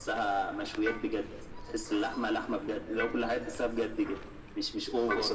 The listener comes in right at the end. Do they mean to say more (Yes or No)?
No